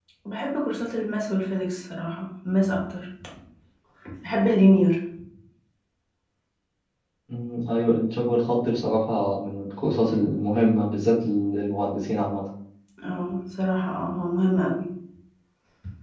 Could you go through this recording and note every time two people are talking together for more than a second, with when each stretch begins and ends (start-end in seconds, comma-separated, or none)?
none